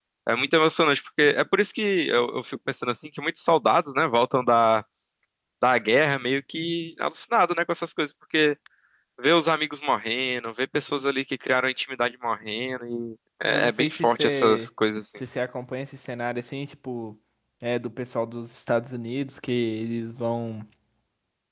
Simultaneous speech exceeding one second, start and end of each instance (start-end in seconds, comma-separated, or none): 13.4-14.7